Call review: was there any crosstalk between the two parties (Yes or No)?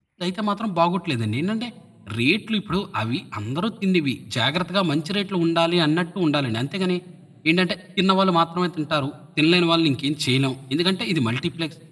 No